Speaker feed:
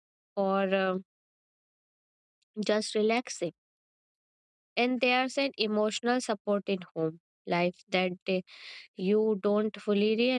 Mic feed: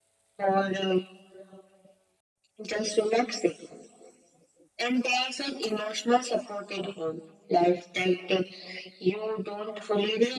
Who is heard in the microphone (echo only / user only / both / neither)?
echo only